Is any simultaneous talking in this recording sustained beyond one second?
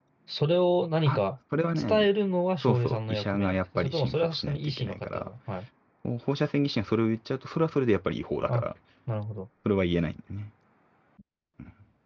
Yes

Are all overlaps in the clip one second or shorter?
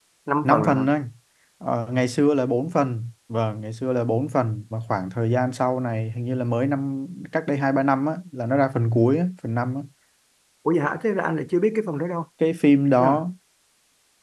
Yes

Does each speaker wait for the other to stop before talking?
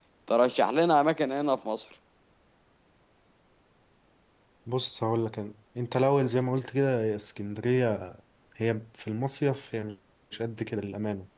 Yes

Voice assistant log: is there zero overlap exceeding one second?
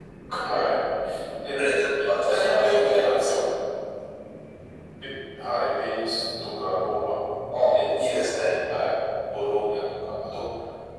No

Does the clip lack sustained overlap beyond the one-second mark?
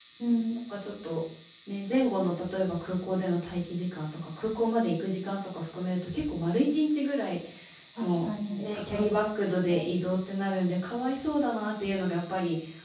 No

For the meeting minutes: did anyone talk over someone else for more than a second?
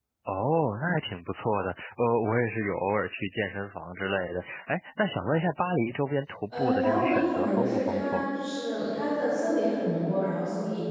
Yes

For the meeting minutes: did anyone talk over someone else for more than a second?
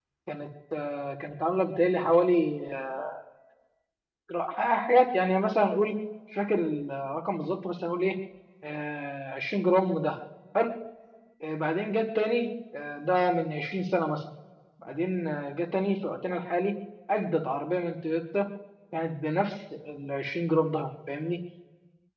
No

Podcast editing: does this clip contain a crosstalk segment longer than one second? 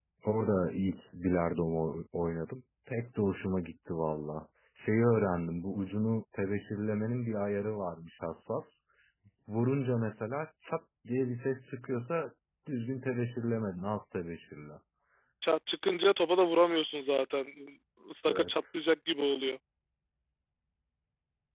No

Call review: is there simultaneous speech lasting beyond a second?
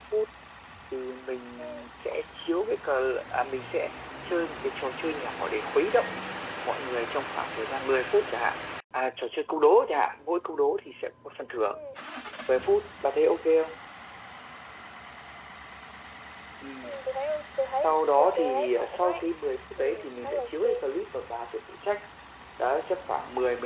Yes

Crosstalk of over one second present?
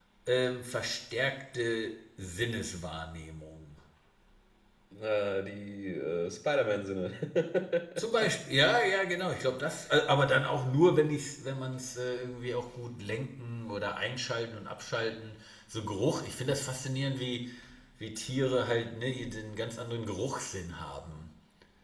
No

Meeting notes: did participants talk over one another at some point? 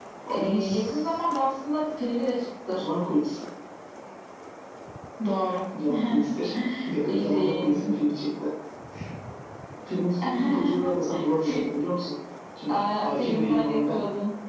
Yes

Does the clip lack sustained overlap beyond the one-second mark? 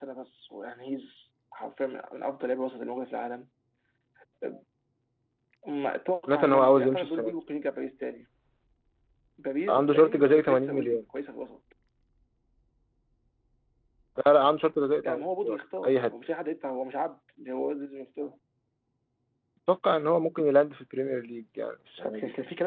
No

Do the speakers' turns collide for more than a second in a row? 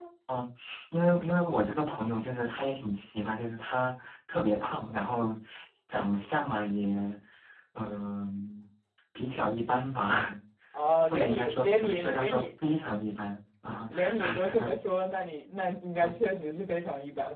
Yes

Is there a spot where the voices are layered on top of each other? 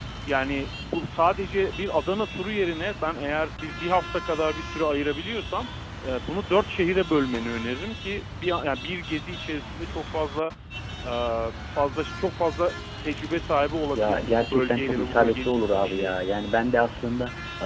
Yes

